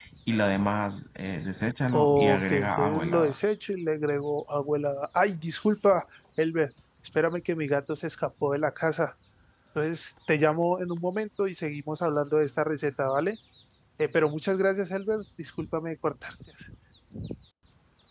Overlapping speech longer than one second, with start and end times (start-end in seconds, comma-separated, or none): 1.9-3.4